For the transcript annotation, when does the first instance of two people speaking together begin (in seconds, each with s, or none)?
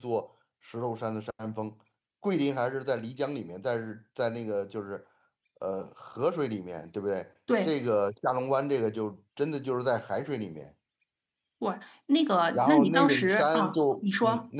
12.5 s